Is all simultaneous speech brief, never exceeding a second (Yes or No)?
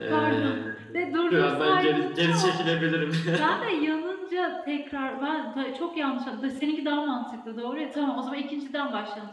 No